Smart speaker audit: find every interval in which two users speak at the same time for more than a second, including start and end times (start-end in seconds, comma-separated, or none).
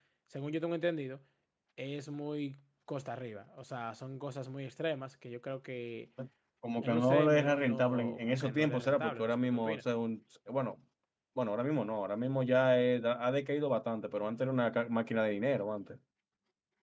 6.8-9.8